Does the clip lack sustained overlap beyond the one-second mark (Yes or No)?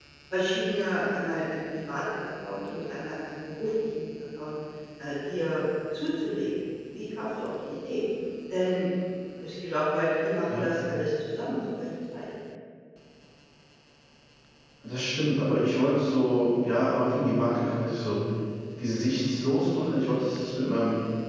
Yes